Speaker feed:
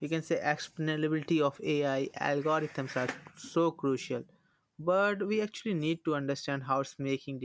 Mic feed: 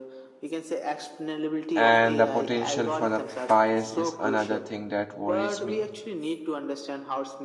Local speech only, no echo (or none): And the potential for the bias is another thing that worries me.